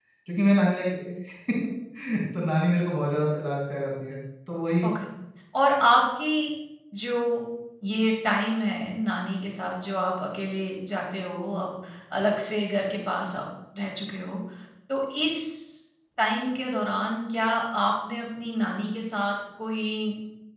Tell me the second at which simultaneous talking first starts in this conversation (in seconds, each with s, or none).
none